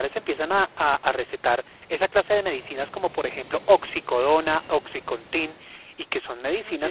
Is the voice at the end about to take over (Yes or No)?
No